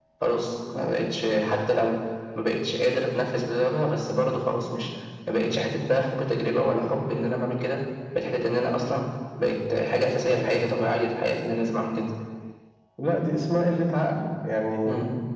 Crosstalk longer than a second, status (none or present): none